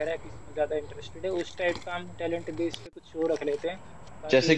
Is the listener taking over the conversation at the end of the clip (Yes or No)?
Yes